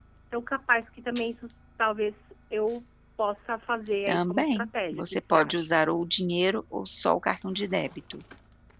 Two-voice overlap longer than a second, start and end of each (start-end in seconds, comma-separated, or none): 4.1-5.8